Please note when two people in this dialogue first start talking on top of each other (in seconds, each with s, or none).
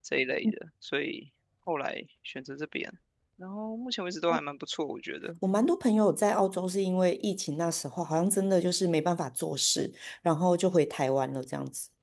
none